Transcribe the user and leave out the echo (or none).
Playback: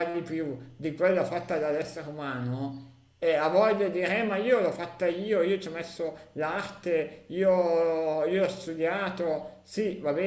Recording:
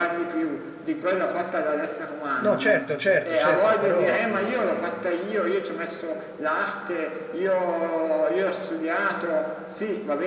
No, certo, certo, certo, però mh,